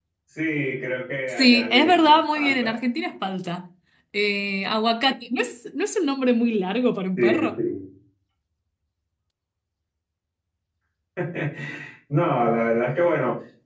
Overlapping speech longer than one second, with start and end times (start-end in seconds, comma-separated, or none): 1.3-2.7